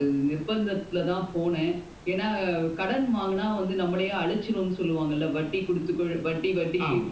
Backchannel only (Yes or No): No